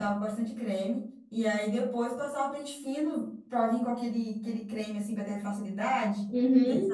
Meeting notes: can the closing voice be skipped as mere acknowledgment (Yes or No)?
No